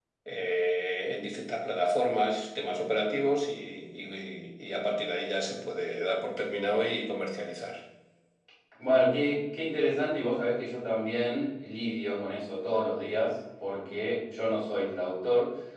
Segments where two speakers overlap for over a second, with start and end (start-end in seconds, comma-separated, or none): none